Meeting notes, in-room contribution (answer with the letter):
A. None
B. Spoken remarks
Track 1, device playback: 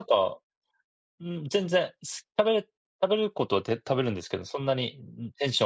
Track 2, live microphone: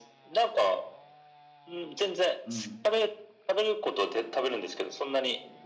B